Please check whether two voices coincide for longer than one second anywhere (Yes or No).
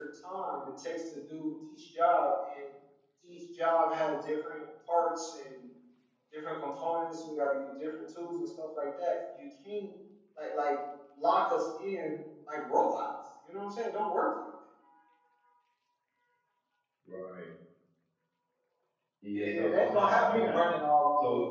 Yes